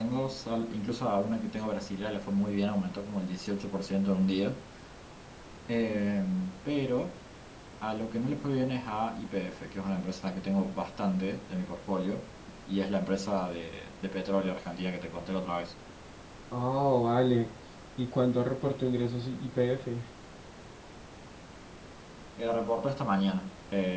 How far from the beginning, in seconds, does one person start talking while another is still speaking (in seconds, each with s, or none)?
none